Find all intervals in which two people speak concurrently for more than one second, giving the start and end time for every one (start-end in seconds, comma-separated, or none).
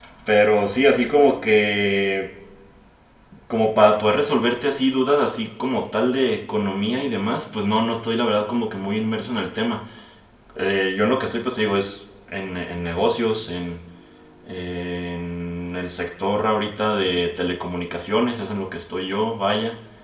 none